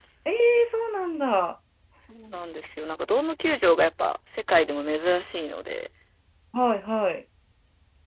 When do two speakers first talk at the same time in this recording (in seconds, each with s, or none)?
none